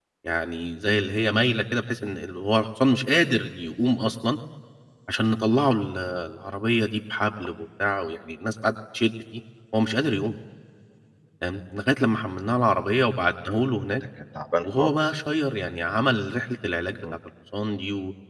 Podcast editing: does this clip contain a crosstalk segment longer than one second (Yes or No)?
No